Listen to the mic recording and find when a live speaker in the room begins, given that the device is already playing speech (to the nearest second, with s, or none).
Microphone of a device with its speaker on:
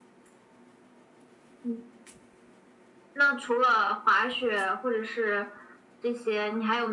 none